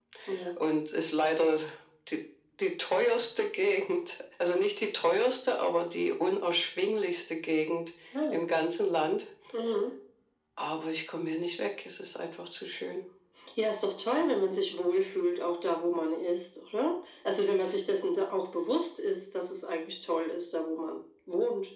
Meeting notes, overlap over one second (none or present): none